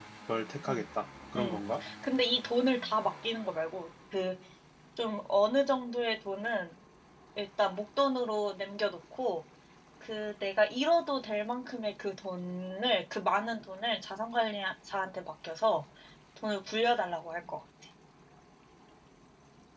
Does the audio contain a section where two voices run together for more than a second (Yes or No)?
No